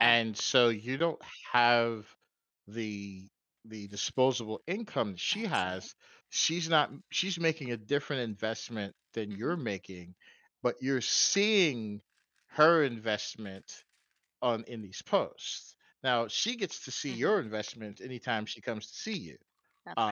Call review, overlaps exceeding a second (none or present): none